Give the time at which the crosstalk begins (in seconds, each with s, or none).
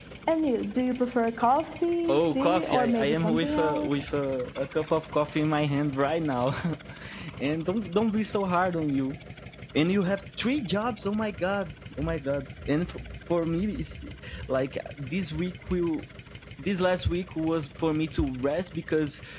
2.1 s